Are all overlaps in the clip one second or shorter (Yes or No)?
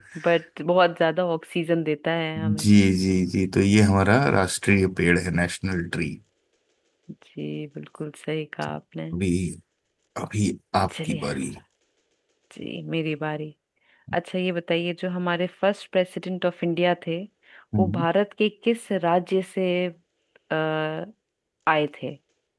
Yes